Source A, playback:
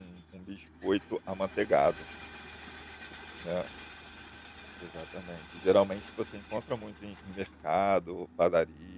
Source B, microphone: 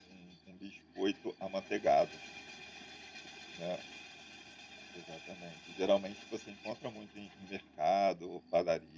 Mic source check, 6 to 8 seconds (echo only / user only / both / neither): echo only